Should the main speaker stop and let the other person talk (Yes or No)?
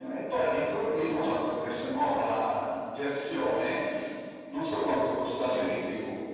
No